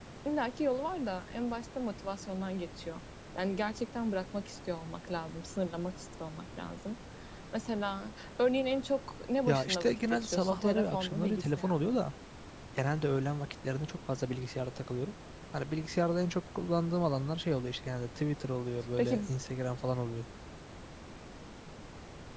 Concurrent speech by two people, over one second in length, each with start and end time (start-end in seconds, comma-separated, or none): 9.5-12.0